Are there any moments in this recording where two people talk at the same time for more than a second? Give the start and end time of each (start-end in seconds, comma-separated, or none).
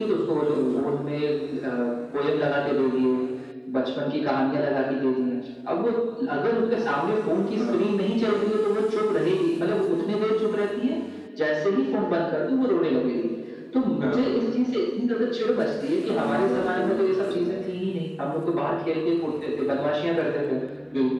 16.1-17.6